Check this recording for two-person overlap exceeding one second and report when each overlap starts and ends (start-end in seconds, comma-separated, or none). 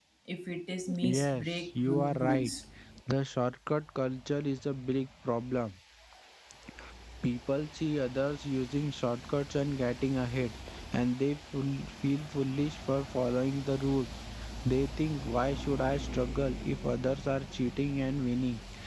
1.0-2.5